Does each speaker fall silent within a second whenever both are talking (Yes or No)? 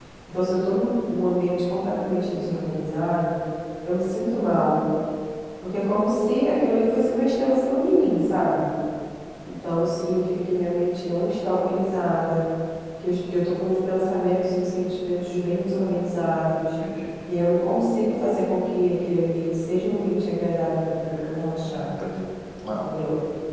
Yes